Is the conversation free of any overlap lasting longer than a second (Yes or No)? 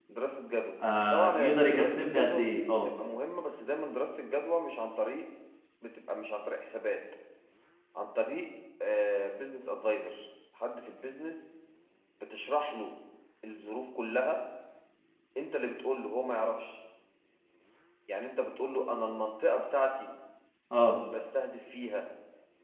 No